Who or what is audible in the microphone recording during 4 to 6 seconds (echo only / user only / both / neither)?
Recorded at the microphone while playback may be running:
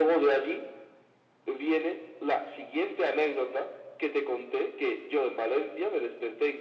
echo only